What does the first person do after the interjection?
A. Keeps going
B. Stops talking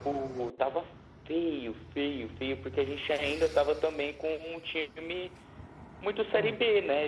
A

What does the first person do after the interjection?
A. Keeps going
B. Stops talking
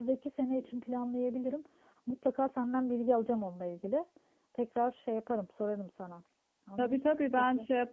B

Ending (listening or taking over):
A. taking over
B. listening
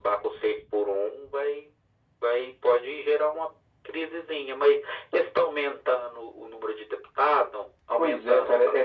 A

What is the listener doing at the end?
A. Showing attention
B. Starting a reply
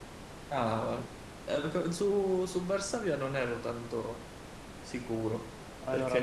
A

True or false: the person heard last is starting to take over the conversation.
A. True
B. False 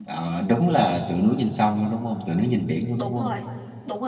A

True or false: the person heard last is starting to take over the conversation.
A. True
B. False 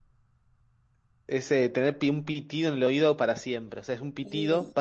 B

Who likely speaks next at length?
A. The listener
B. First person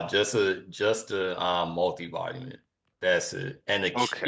B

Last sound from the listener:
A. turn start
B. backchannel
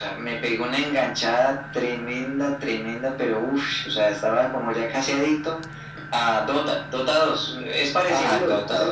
A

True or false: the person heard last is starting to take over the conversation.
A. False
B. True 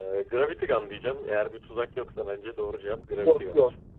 B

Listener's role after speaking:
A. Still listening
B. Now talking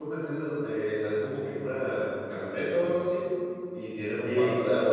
A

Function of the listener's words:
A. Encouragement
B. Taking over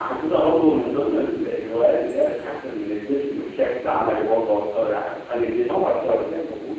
B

